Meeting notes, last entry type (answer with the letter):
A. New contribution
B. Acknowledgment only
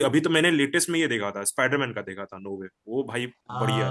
A